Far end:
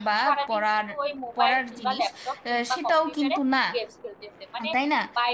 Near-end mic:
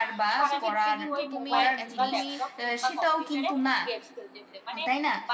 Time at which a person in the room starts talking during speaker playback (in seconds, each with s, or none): 0.5 s